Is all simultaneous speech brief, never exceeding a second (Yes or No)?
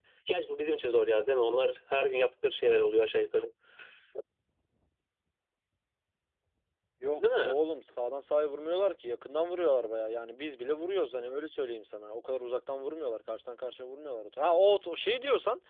Yes